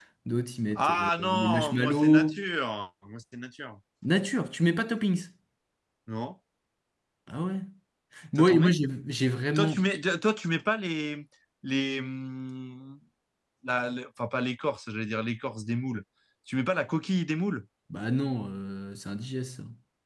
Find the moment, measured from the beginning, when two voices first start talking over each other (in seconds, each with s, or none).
0.8 s